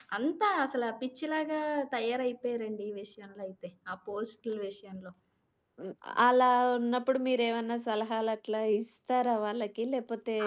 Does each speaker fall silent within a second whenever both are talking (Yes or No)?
Yes